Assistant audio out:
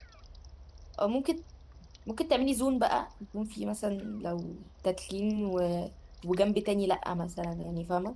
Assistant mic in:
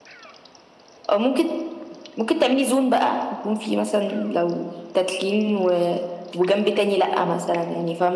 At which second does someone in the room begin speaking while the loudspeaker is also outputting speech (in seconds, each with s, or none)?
none